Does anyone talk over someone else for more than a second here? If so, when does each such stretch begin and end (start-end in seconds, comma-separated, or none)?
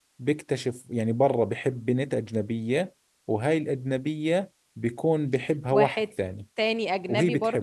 none